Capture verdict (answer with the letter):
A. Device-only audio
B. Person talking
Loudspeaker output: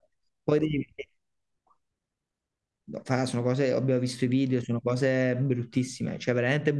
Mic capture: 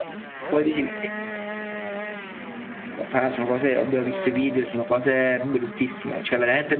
A